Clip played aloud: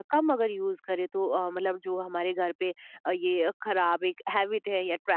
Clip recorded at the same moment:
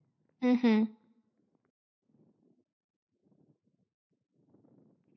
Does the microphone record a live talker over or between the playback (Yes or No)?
Yes